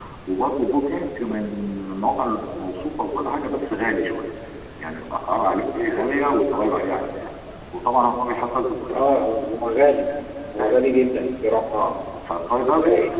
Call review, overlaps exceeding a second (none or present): none